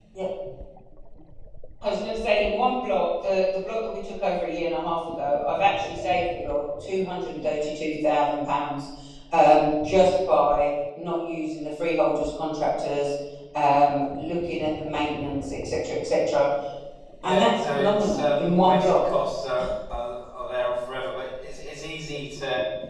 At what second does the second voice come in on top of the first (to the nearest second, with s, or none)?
17 s